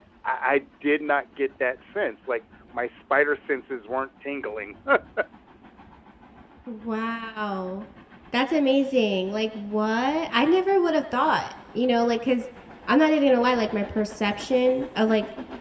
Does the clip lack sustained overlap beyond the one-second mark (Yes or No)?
Yes